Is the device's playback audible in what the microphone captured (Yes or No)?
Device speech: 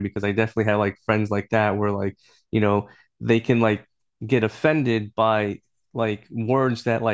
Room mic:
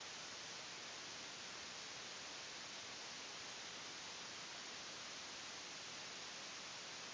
No